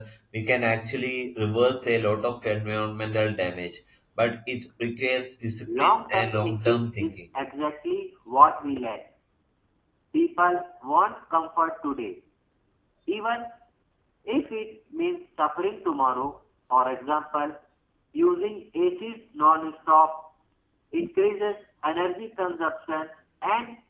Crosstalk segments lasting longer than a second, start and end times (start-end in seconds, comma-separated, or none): 5.7-7.2